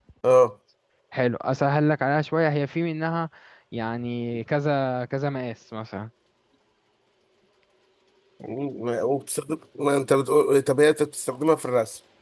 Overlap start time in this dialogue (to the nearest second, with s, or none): none